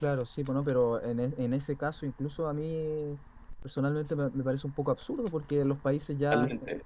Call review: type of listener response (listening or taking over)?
listening